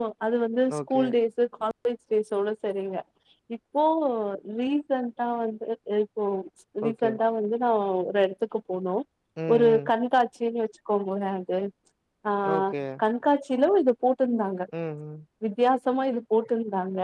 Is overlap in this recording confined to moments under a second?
Yes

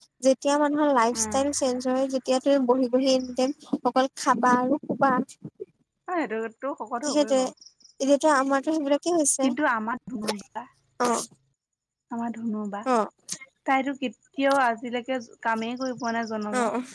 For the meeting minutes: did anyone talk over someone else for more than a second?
No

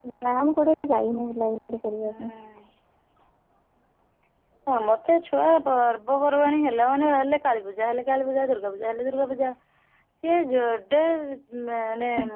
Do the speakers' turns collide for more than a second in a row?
No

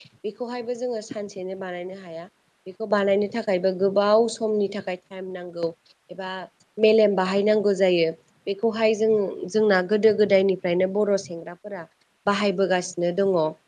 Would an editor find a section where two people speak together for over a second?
No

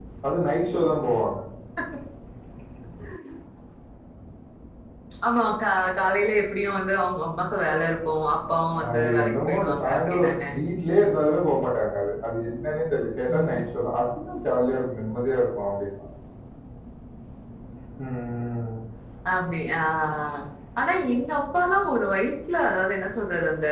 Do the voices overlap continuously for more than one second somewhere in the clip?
Yes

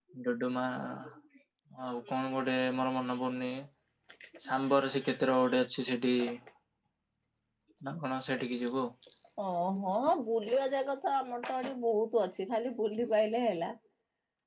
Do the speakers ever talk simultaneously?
No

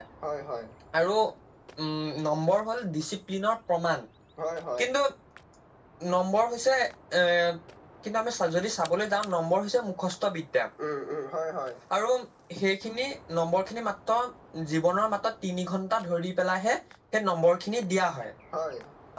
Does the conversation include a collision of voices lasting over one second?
No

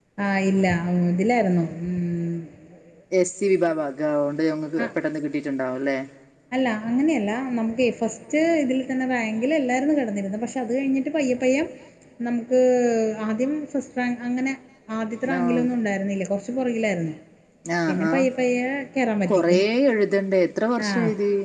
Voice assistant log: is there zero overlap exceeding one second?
Yes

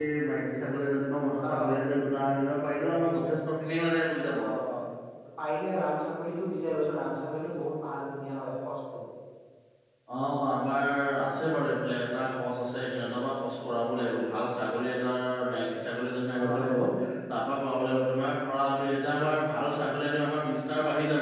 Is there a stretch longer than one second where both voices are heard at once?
No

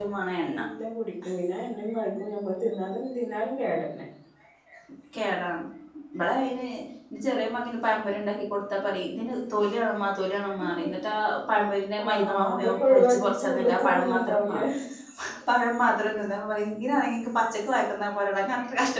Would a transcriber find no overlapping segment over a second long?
No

